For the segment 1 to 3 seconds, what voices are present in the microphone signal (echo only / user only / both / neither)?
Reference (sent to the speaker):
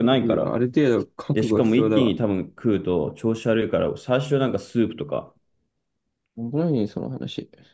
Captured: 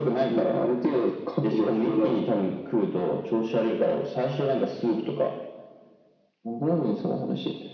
echo only